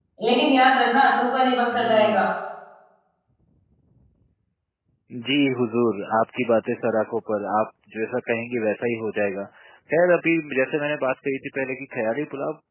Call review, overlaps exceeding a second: none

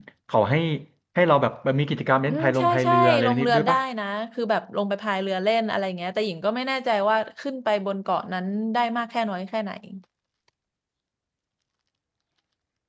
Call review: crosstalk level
present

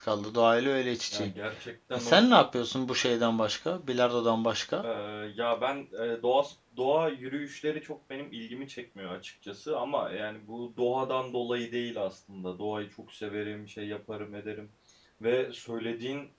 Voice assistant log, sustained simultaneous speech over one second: none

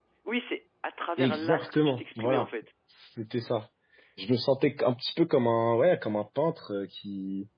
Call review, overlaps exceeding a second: present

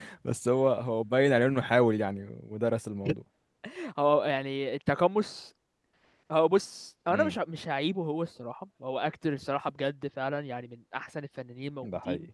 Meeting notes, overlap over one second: none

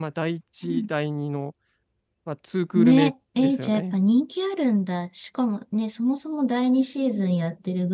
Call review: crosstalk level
present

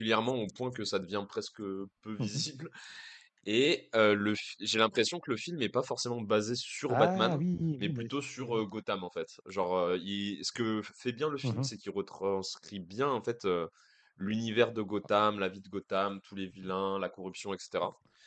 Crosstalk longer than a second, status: none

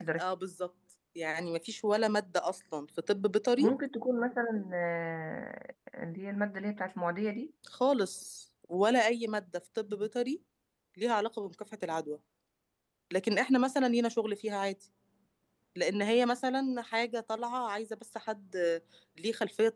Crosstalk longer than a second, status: none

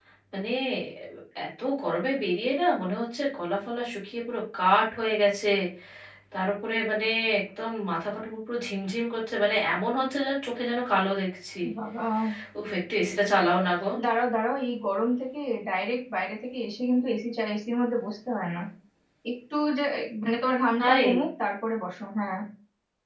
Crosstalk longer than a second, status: none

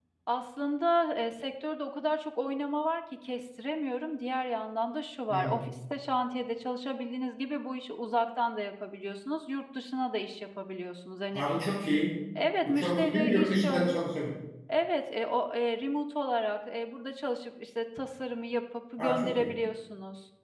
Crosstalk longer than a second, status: present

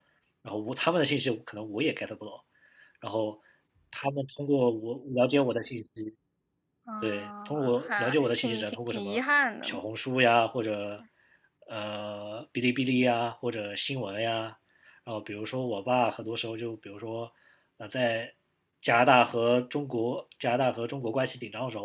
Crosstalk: present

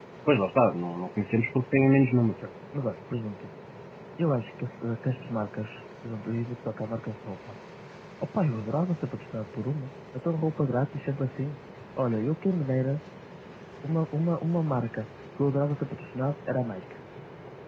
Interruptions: none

